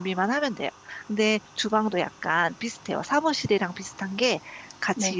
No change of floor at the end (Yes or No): Yes